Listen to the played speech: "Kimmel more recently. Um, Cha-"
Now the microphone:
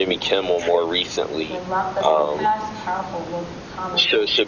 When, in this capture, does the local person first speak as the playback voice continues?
1.5 s

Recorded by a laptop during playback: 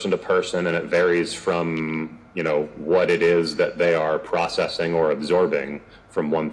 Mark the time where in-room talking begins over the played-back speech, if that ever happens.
none

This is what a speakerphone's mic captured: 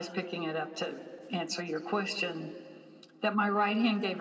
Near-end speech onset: none

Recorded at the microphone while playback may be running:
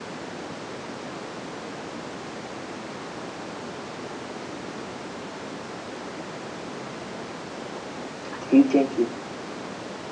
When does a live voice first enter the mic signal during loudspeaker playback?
8.3 s

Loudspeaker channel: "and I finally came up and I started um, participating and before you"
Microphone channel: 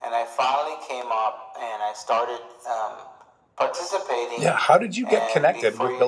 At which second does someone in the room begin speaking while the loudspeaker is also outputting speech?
4.4 s

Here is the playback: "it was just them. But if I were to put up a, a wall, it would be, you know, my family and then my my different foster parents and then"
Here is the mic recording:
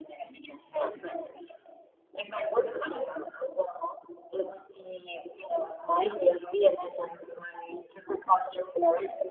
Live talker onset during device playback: none

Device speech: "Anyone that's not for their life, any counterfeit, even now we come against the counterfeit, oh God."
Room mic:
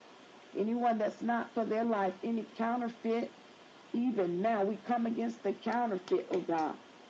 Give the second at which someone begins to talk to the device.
none

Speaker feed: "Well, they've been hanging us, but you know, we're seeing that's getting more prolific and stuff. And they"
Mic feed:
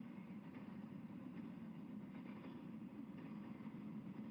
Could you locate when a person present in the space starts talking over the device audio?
none

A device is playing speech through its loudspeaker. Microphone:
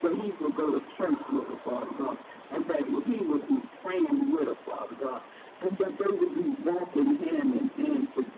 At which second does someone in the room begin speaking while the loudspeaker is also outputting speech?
none

